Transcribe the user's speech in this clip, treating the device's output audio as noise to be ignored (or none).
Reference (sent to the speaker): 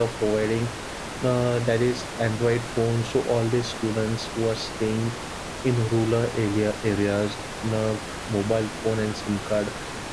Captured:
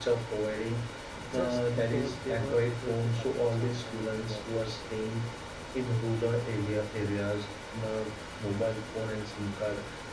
just because they were able to attend some online classes